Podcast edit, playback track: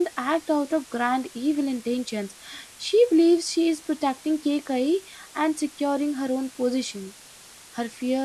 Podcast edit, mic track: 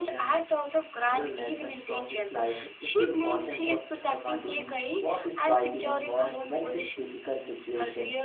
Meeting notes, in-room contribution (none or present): present